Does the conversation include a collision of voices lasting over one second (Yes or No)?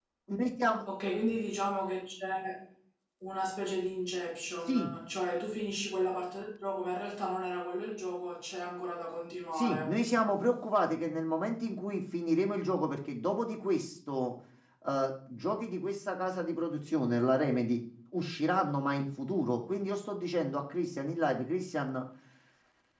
No